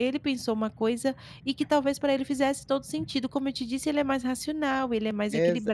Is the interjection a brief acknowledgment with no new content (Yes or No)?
No